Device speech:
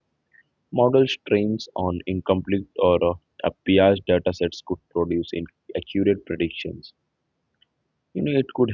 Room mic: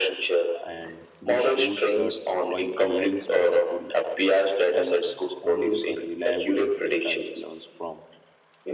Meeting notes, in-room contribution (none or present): present